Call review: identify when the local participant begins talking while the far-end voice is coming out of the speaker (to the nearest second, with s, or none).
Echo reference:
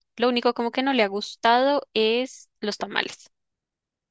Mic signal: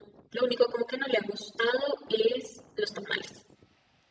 none